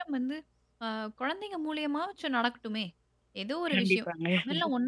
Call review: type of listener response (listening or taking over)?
listening